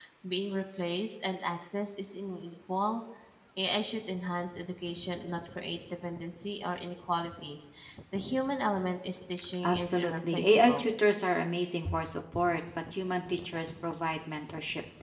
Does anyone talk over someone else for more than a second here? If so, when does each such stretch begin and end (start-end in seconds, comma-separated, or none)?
9.6-10.9